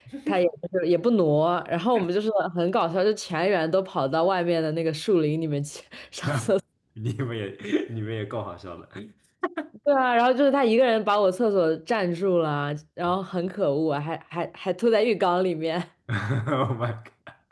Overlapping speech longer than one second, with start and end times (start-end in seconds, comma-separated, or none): none